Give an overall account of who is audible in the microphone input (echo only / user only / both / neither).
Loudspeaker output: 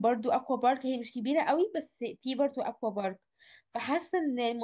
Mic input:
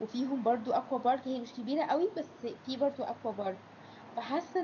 echo only